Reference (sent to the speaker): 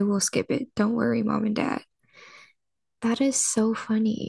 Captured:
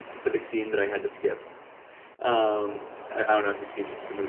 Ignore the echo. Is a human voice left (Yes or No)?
Yes